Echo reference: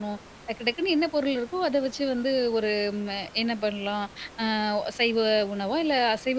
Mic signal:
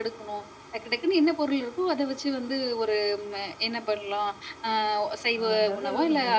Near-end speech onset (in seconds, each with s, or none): 5.4 s